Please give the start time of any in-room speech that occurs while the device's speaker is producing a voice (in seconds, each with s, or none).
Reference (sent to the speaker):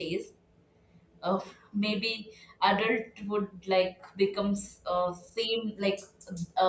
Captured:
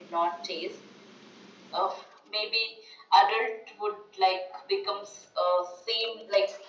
none